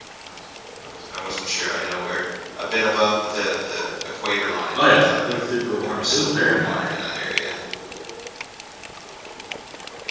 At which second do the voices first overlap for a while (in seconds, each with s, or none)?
4.7 s